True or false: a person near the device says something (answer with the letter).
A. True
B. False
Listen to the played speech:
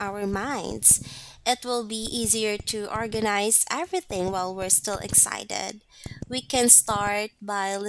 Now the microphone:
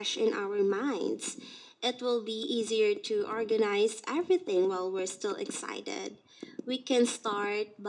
B